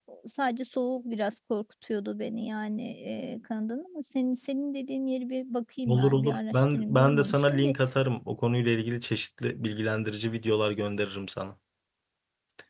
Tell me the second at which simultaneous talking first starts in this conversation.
6 s

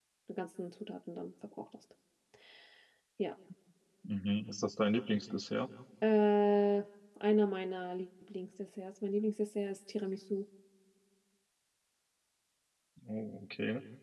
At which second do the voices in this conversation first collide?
none

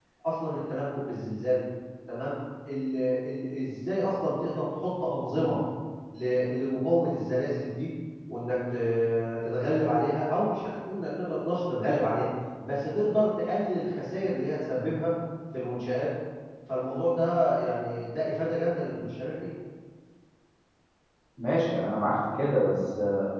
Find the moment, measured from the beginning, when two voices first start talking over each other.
none

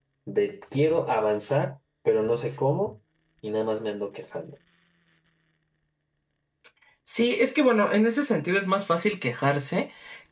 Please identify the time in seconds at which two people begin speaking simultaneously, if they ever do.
none

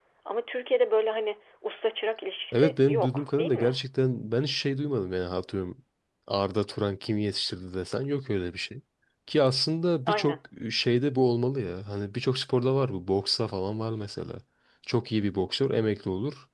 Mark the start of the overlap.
3 s

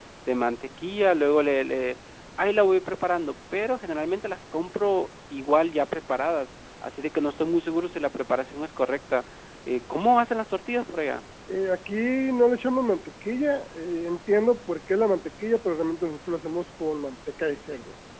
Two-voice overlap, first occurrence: none

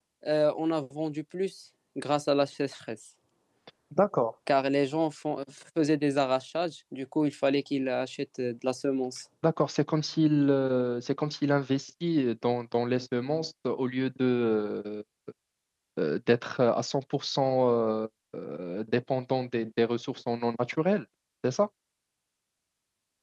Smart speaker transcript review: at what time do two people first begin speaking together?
none

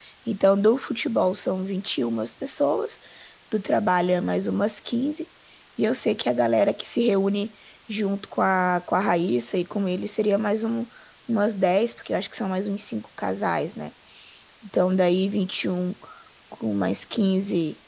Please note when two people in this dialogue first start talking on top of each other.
none

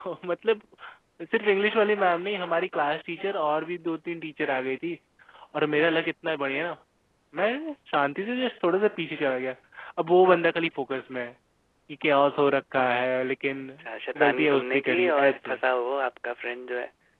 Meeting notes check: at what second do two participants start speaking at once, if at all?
14 s

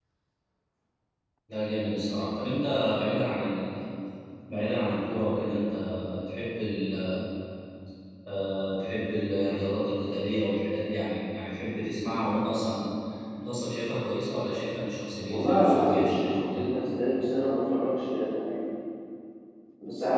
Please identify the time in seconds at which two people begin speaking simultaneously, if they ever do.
15 s

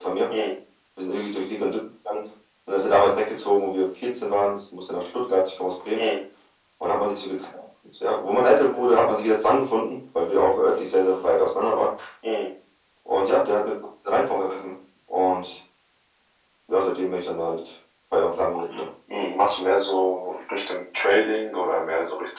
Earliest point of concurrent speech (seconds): none

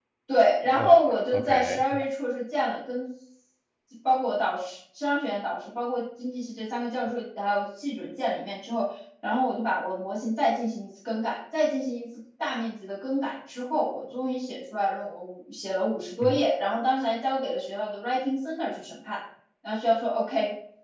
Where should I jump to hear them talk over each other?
1 s

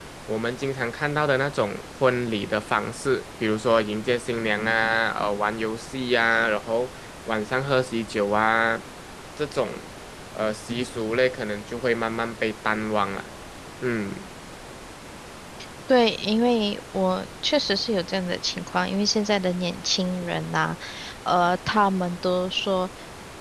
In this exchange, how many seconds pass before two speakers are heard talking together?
none

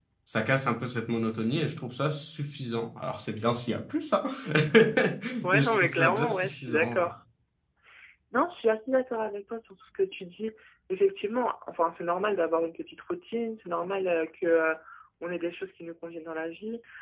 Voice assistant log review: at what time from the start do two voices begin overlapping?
6 s

